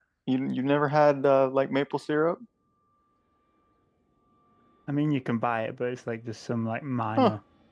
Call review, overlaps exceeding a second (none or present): none